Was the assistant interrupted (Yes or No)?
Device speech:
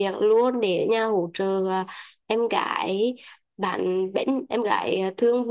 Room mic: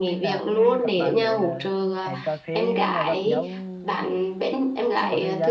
Yes